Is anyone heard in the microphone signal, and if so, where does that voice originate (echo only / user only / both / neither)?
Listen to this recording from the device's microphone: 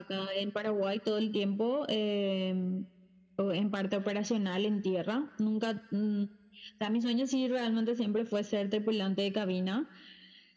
echo only